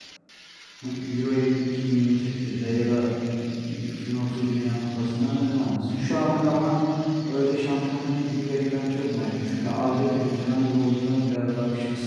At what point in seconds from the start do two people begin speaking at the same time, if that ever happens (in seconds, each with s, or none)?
none